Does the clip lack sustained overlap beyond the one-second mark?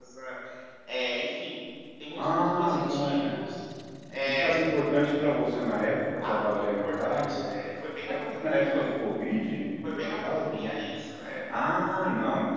No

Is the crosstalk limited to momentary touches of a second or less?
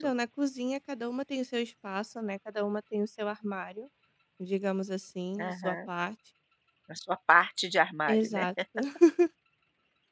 Yes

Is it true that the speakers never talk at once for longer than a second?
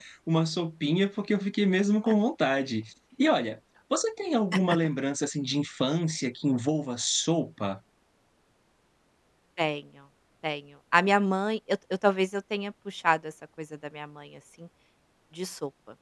Yes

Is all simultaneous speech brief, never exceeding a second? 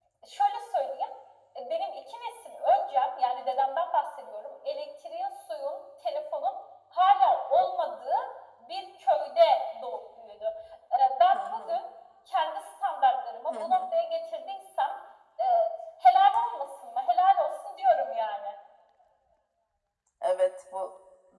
Yes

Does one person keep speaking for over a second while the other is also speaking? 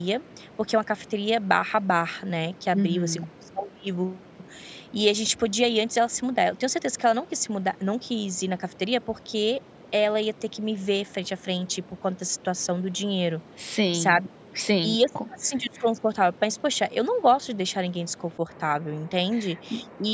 No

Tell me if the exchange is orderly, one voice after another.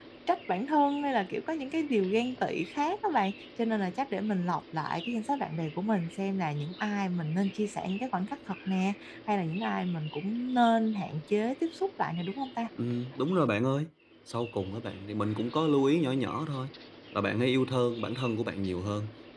Yes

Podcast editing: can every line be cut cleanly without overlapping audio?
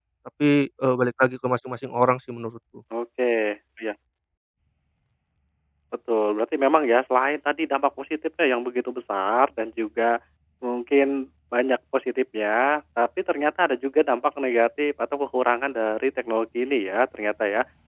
Yes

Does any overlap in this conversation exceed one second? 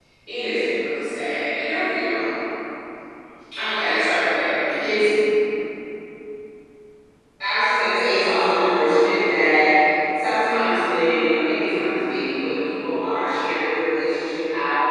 No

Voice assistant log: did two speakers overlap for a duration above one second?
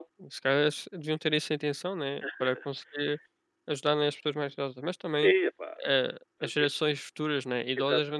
No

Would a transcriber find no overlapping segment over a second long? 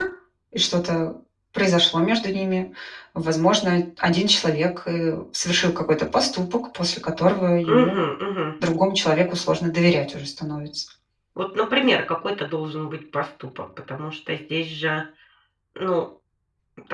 Yes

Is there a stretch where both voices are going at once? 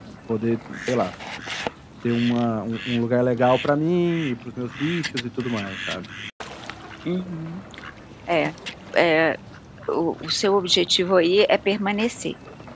No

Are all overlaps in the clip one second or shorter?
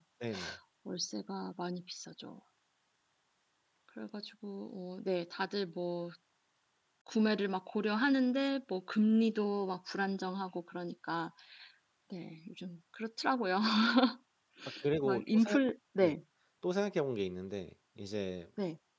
Yes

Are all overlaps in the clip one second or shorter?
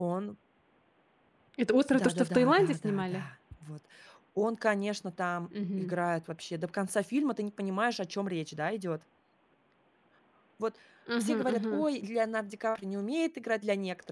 No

